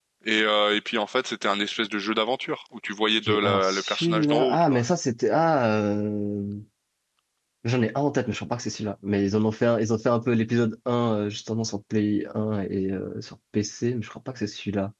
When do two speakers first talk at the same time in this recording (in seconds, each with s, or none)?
3.2 s